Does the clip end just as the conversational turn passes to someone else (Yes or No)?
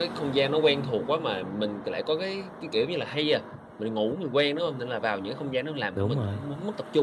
No